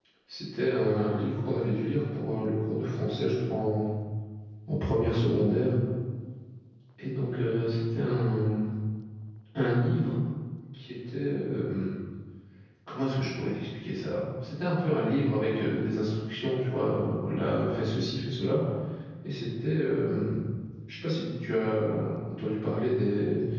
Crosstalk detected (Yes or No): No